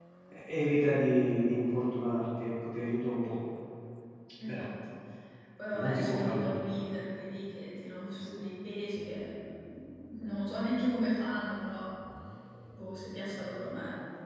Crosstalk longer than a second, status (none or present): present